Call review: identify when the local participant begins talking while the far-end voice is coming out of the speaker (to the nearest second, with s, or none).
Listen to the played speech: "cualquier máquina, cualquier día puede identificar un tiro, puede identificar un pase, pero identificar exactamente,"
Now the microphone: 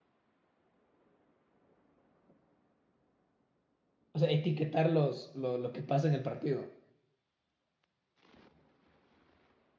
4 s